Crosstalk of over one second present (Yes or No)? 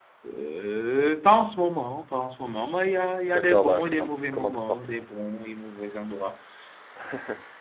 Yes